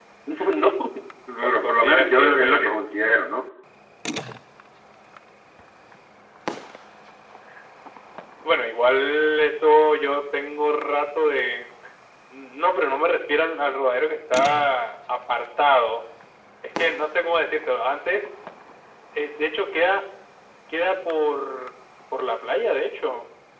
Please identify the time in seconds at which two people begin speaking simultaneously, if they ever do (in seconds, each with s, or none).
1.4 s